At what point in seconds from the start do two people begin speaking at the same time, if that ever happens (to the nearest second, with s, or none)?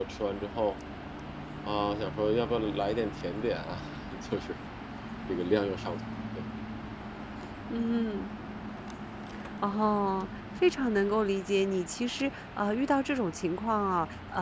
none